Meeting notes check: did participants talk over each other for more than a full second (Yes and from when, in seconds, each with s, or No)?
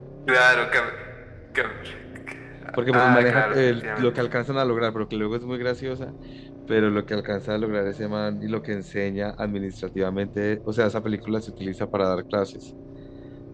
Yes, from 2.9 s